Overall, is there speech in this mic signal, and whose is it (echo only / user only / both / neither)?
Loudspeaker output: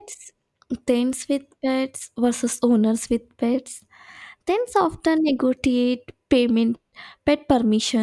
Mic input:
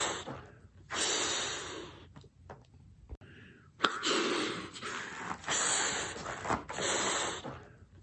neither